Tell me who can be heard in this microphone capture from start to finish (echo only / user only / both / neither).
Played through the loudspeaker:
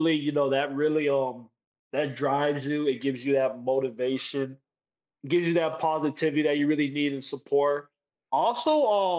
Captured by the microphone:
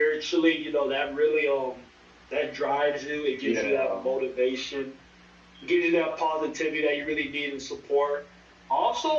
both